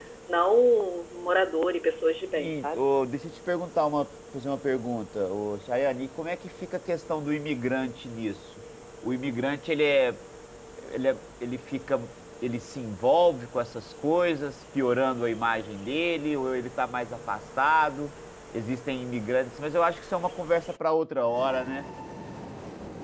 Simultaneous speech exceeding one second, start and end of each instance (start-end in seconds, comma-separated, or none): none